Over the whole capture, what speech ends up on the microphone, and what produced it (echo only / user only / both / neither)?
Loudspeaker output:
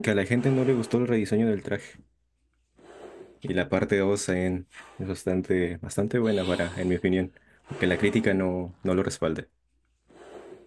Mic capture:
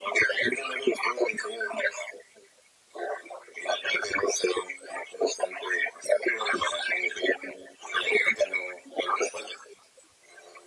echo only